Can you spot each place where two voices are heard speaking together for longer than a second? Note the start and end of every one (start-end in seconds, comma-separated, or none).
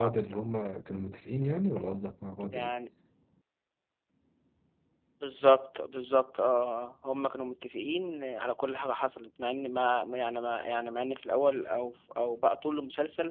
none